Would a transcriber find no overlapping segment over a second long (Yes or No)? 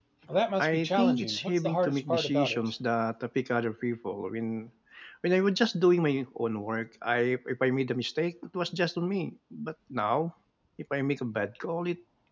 No